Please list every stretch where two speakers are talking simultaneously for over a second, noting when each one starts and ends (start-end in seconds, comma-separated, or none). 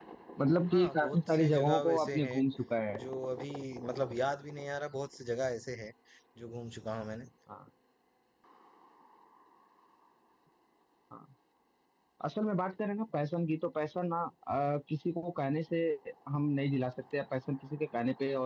0.7-2.4